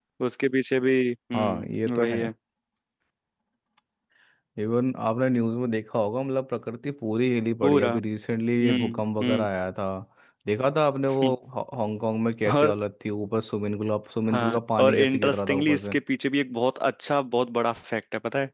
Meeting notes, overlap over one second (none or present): present